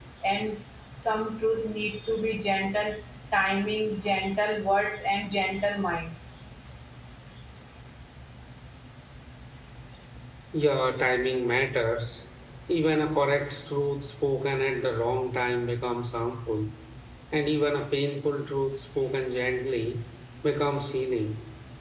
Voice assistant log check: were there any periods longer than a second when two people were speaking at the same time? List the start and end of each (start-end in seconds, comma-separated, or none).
none